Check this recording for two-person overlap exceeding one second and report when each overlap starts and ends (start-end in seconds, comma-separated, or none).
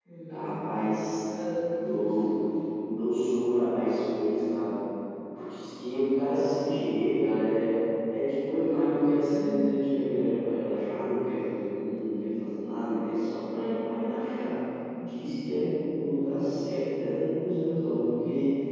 none